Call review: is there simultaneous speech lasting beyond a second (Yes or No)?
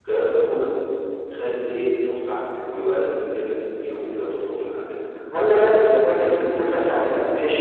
No